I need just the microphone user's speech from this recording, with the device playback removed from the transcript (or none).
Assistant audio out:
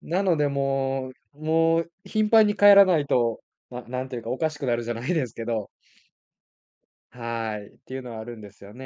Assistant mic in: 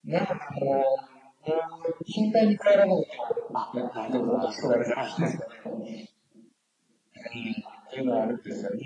あ、なるほどなるほど。はいはい。